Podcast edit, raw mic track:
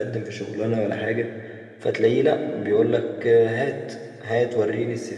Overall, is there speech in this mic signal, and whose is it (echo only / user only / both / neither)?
echo only